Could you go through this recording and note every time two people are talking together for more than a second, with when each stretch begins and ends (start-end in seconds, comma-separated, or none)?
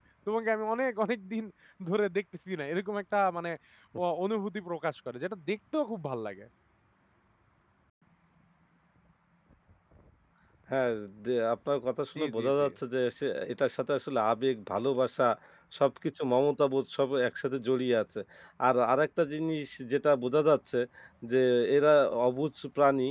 none